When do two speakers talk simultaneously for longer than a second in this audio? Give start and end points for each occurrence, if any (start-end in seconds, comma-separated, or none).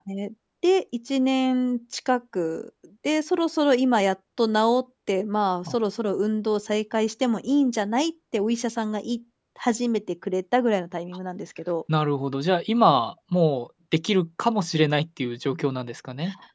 none